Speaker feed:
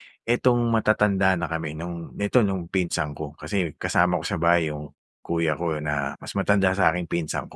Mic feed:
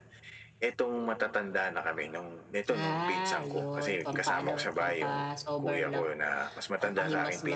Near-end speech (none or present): present